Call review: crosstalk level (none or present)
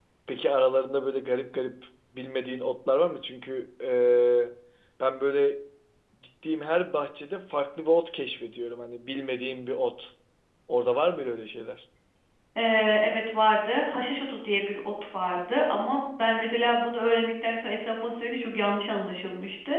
none